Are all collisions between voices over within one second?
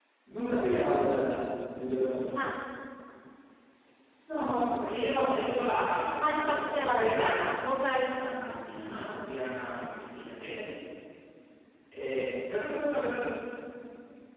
No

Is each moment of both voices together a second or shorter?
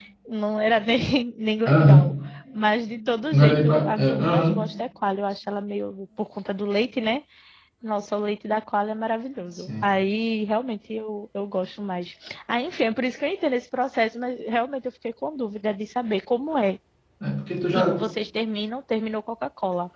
No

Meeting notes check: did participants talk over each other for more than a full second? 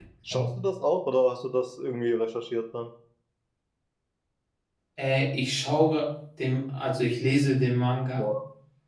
No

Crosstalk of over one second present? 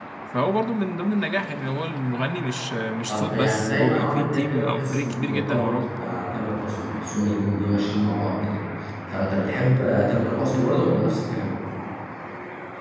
Yes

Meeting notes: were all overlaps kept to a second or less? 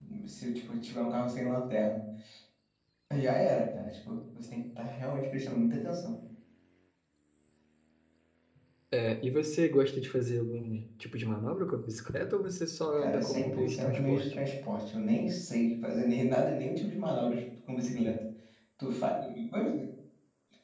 No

